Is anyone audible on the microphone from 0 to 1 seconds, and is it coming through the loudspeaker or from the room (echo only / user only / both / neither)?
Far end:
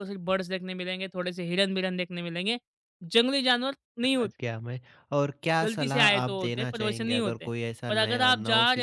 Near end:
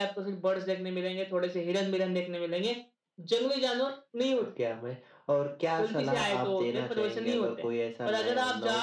echo only